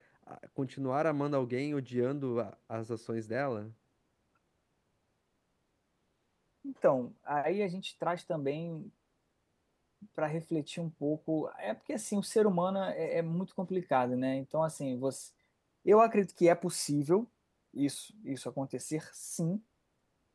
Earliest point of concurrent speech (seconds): none

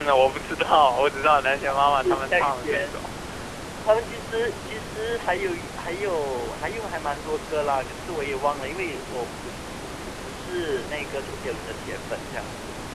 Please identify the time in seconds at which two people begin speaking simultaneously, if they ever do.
2 s

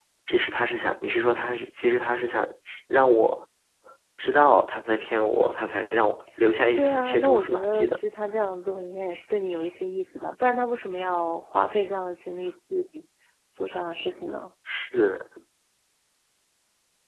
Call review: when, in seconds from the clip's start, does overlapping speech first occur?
7 s

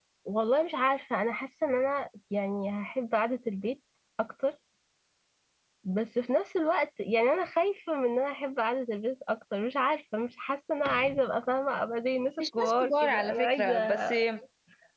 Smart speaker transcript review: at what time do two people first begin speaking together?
12 s

